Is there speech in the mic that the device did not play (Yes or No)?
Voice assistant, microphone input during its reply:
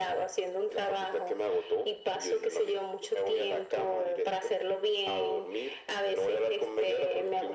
No